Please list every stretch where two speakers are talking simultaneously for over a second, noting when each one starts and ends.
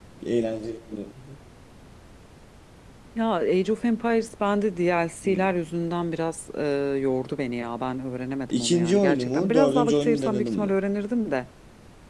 8.5-10.7

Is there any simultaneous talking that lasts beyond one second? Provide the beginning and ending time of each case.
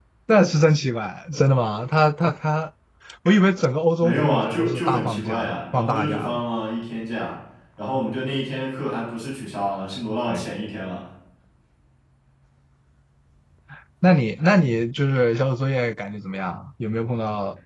4.0-6.4

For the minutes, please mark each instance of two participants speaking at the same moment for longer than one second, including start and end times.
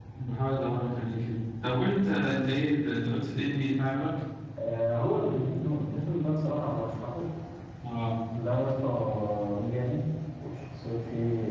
none

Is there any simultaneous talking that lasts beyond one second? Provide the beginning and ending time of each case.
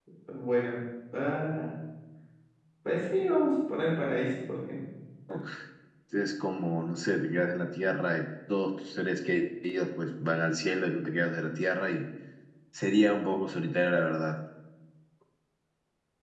none

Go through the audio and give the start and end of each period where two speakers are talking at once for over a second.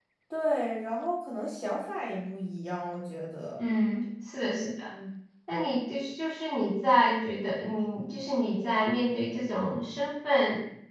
none

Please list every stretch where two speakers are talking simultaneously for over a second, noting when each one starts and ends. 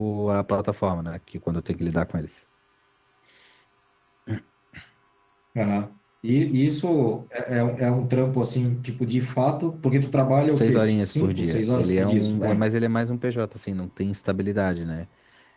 10.5-12.7

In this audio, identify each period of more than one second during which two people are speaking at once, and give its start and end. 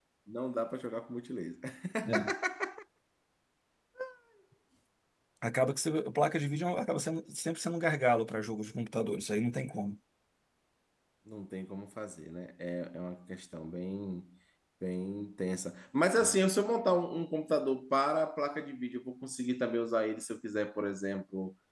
none

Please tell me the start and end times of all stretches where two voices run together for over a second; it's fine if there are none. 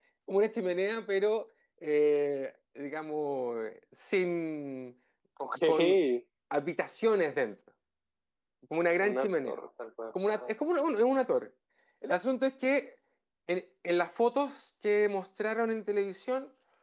none

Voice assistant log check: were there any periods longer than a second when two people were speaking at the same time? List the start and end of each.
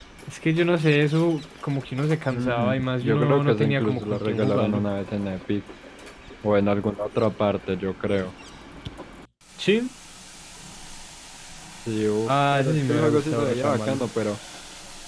2.3-4.8, 12.3-14.0

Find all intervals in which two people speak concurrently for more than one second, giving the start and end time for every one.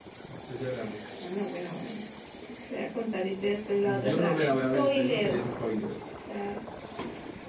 3.8-5.5

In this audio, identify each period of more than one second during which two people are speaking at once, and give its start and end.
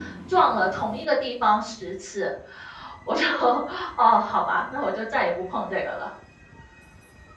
none

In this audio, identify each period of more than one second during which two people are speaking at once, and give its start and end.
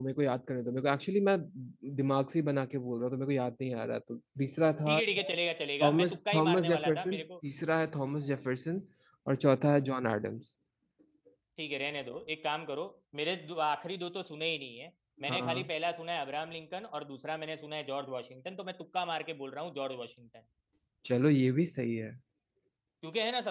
5.8-7.2

